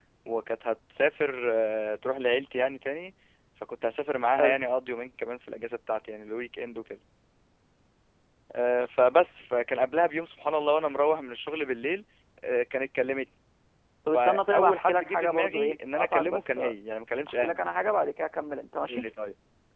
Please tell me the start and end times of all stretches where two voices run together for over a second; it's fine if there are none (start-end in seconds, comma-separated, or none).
14.1-16.6